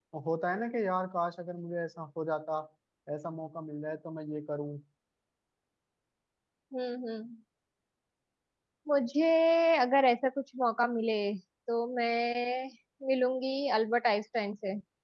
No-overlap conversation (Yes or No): Yes